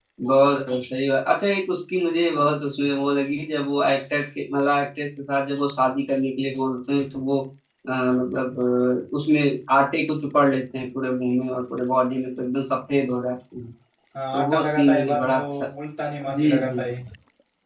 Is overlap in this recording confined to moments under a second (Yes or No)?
No